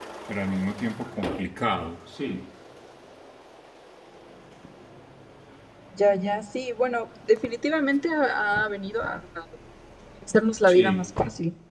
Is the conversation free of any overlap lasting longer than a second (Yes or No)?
Yes